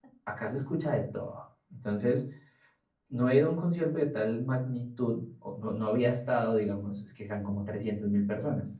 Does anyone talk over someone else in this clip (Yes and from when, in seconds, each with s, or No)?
No